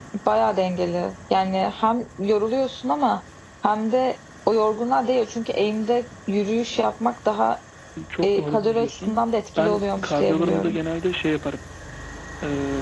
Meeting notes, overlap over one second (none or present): present